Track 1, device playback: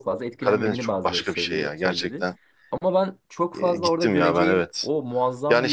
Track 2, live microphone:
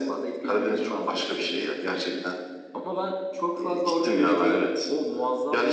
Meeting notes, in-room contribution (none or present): none